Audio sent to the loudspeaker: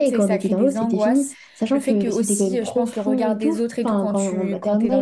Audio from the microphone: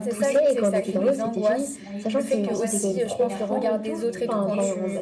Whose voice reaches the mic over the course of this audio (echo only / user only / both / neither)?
both